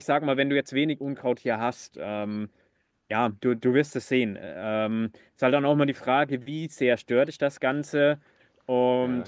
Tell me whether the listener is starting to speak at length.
No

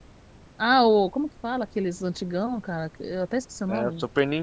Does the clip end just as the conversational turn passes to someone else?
Yes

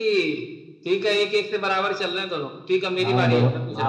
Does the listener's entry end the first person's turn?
Yes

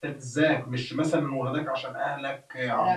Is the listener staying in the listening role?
No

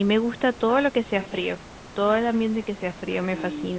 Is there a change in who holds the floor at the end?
Yes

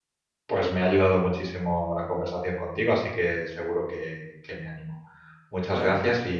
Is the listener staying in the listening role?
Yes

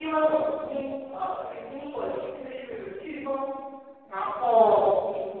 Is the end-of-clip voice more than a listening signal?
No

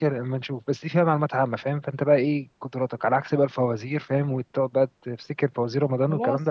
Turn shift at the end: Yes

